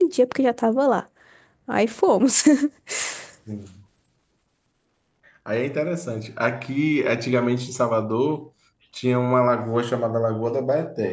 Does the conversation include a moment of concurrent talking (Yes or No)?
No